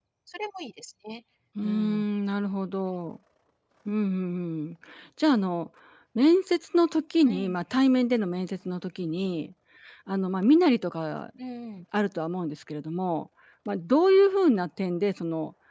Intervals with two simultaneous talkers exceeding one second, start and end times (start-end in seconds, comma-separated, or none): none